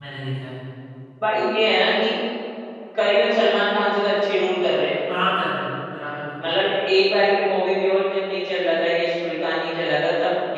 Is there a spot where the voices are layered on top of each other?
No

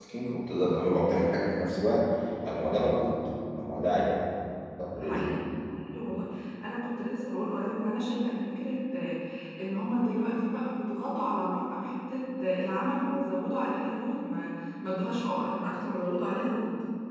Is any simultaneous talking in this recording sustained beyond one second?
No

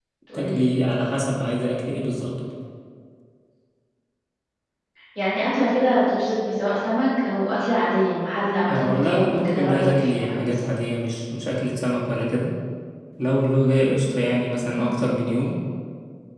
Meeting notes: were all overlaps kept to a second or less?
No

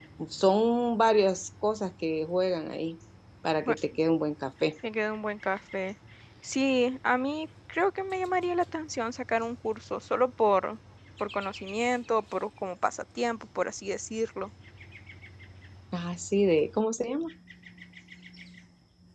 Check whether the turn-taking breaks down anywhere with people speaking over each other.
No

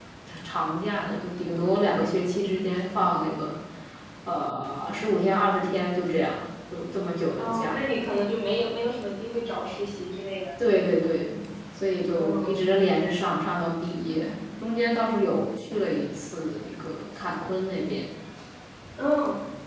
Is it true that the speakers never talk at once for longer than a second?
Yes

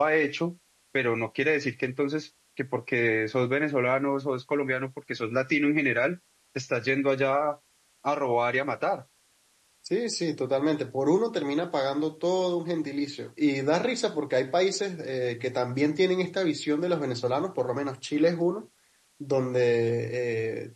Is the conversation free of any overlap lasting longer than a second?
Yes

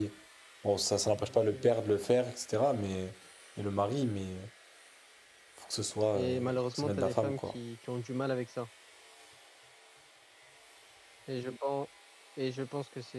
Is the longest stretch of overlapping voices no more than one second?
No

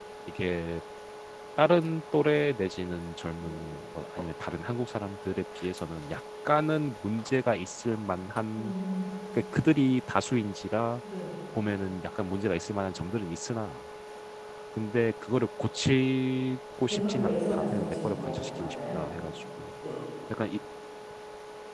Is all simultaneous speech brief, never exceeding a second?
No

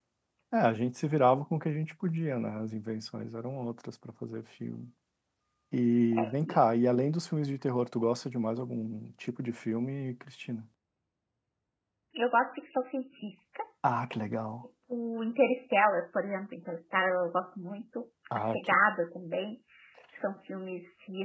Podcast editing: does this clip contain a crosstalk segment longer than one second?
No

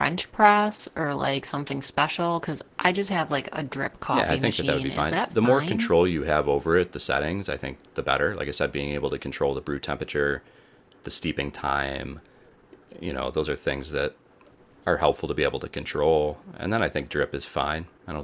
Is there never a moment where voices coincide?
No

